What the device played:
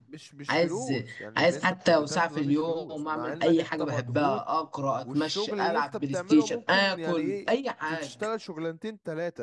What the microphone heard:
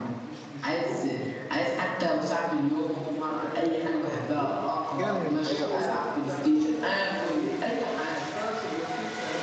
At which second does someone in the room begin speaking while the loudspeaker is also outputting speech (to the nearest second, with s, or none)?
5 s